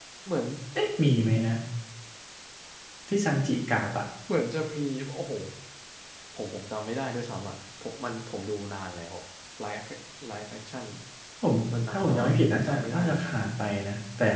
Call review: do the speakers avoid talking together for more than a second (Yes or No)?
No